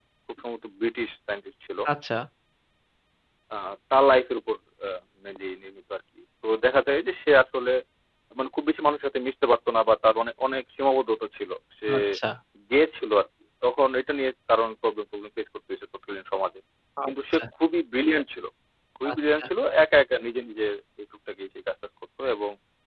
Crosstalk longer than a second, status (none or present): none